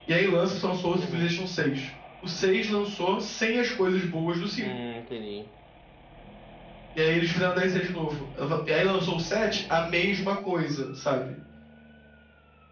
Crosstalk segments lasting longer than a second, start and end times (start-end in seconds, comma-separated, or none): none